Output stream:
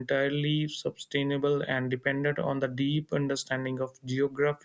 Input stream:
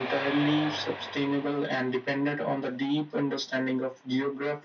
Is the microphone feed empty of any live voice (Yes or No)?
Yes